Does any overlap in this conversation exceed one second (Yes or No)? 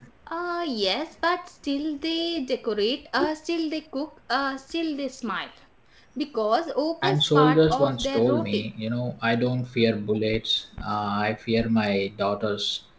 Yes